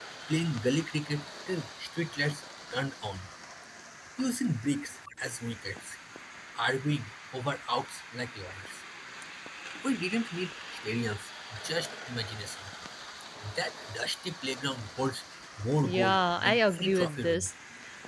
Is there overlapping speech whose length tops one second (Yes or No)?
Yes